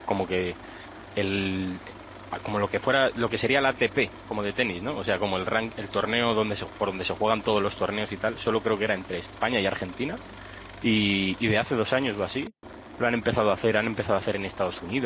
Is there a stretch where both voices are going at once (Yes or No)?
No